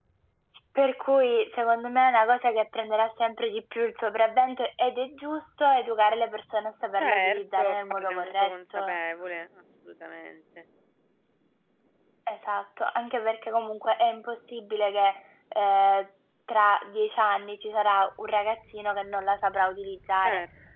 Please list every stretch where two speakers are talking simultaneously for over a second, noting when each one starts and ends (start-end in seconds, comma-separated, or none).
7.0-9.0